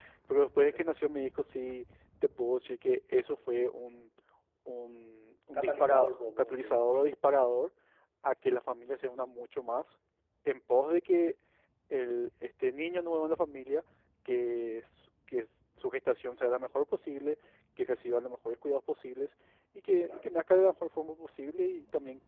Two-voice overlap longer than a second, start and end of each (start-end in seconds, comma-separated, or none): 5.5-6.8